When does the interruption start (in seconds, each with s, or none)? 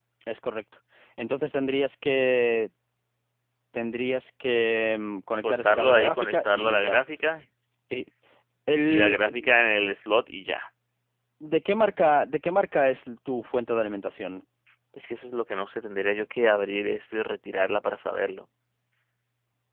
5.4 s